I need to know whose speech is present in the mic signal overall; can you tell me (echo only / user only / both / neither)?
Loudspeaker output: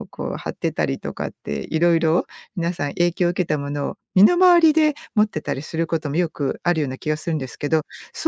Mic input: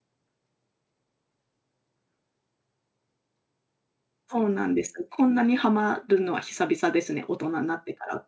user only